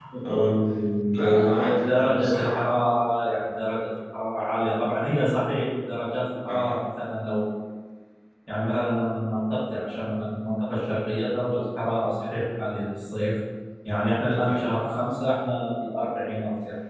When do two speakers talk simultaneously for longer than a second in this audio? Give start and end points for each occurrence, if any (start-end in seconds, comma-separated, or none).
1.1-2.6